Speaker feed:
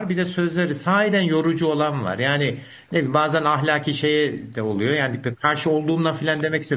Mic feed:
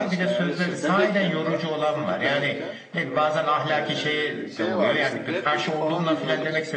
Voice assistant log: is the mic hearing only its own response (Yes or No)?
No